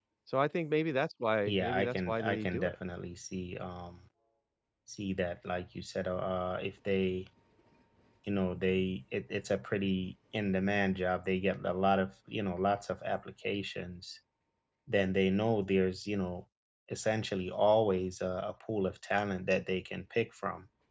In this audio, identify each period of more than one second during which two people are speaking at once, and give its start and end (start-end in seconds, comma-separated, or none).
1.5-2.7